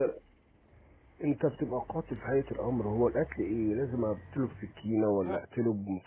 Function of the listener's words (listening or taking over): listening